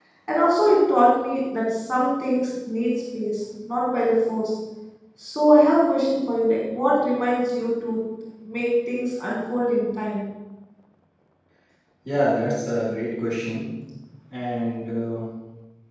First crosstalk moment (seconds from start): none

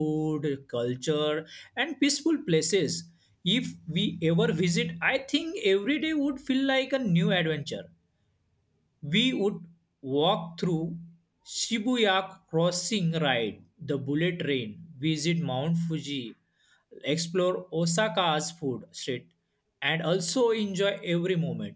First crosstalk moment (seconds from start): none

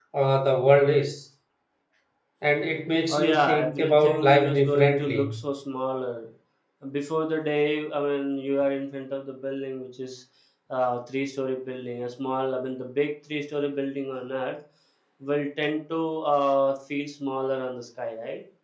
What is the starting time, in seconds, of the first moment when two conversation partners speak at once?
3.1 s

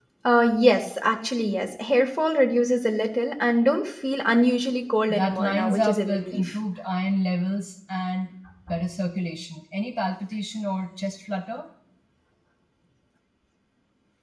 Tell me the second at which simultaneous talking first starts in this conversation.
5.1 s

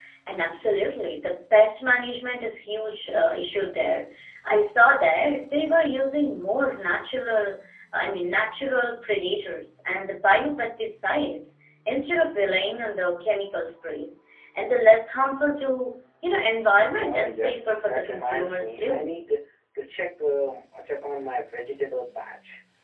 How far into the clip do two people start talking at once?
17.0 s

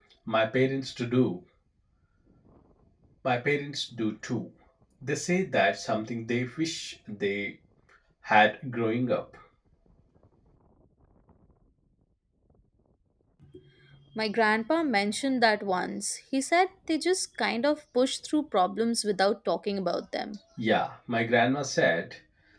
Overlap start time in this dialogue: none

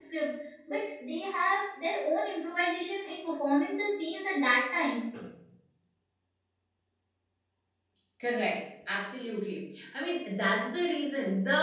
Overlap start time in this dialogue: none

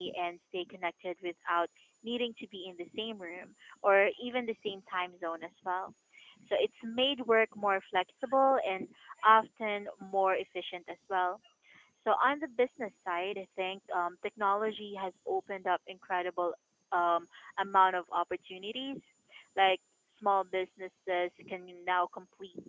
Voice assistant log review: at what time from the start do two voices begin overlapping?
none

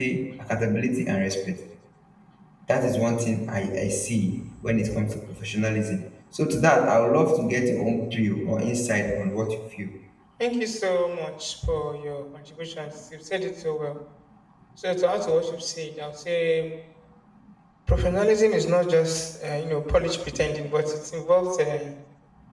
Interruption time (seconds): none

